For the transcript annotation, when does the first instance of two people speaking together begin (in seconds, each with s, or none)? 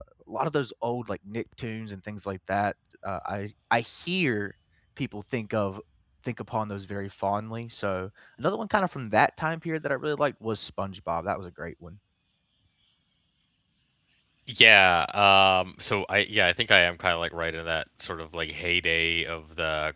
none